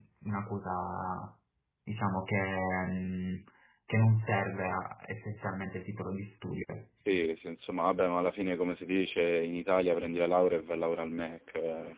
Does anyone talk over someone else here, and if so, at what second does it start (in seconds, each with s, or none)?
none